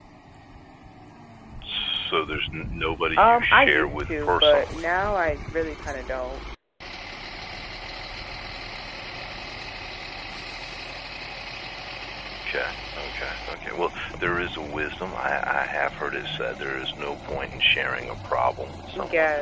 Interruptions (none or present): present